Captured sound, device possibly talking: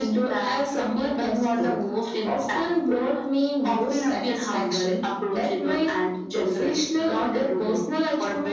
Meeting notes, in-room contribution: none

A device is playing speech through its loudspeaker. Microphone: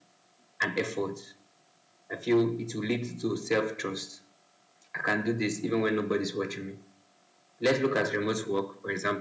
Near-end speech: none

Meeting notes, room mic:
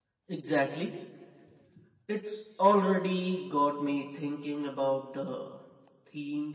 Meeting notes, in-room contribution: present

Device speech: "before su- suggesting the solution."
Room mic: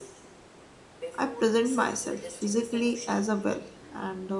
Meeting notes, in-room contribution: present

